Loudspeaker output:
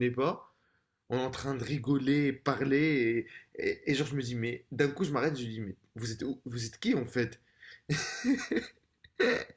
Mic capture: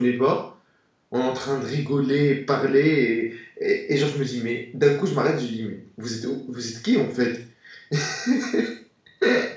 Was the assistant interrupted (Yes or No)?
No